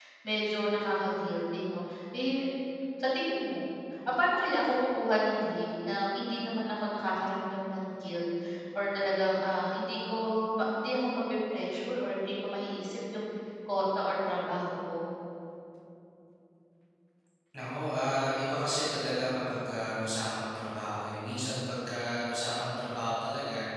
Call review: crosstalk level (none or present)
none